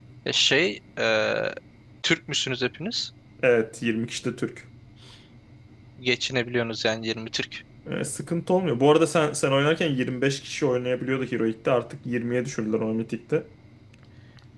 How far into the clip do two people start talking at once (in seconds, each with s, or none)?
none